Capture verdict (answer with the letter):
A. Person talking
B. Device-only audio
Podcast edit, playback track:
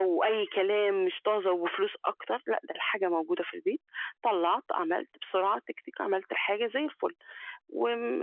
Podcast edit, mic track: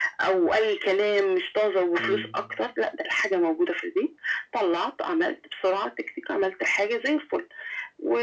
A